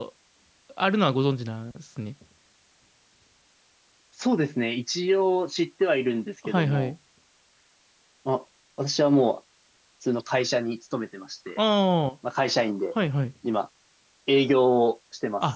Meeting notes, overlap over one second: none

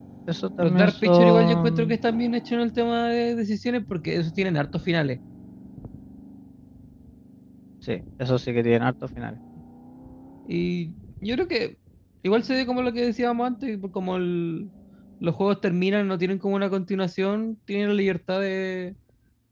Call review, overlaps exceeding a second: present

